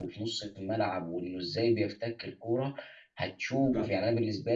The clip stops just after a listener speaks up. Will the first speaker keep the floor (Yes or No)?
Yes